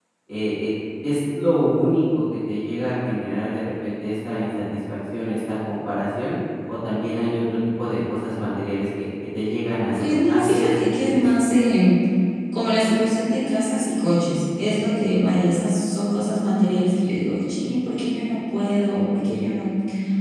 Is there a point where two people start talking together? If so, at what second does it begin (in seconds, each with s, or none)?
10.0 s